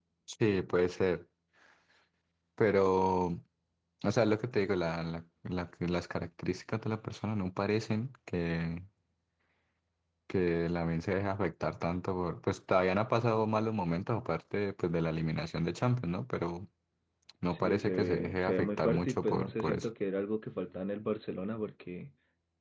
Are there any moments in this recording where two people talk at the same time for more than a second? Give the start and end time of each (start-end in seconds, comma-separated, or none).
17.5-19.9